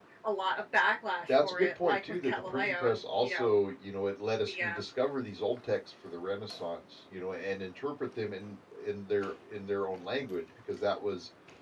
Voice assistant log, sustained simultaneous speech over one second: present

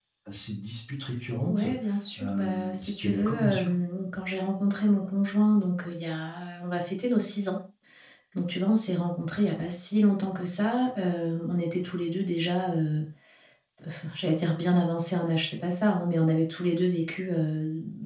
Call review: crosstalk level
present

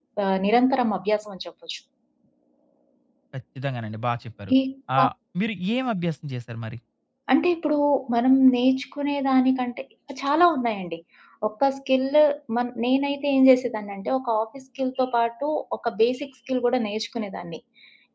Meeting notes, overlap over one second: none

